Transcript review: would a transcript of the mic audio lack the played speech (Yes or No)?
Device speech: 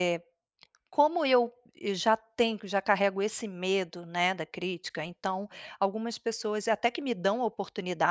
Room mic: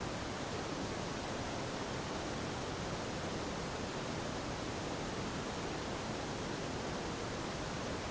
Yes